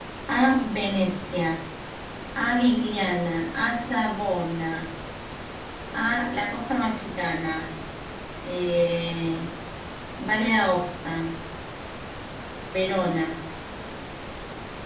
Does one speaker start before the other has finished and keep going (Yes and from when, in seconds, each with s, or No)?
No